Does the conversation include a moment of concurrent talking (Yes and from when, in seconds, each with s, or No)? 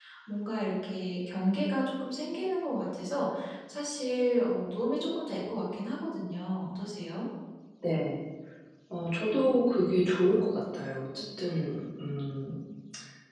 No